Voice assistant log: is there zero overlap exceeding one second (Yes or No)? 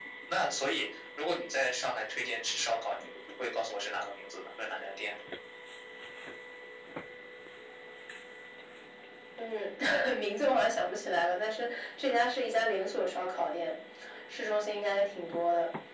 Yes